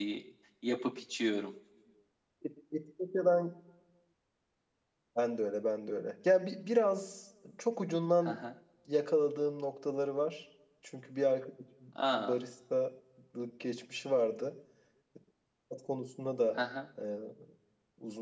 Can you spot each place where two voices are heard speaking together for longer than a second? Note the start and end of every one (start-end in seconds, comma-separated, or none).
none